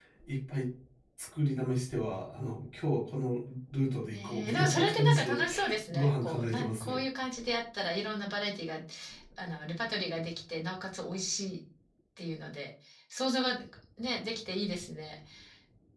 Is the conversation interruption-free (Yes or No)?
No